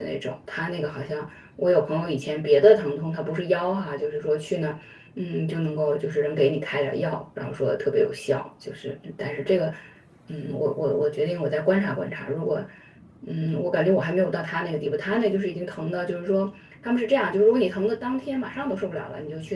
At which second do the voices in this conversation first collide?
none

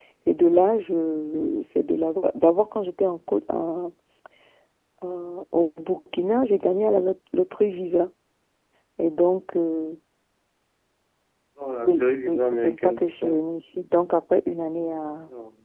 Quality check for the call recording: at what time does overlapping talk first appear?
11.8 s

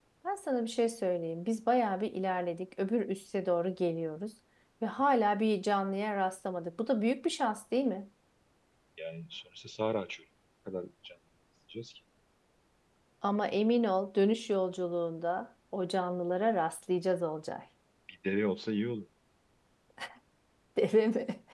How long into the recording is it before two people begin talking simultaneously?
none

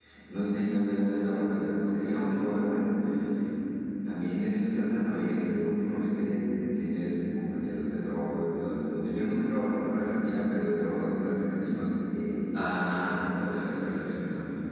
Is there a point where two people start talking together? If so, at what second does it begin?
12.5 s

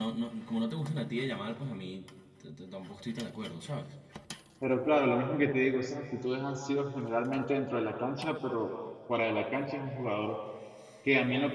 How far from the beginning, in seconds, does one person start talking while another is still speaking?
none

